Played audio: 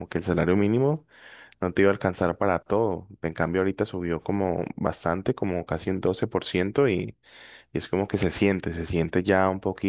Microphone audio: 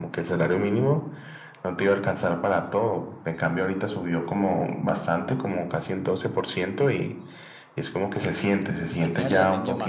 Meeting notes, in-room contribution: present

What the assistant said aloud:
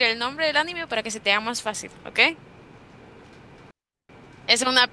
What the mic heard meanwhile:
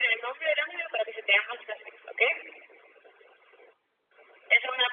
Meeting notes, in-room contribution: none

